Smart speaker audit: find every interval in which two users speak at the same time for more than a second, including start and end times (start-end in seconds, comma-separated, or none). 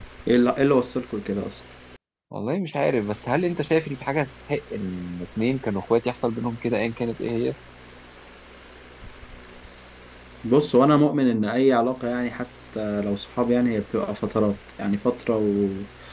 none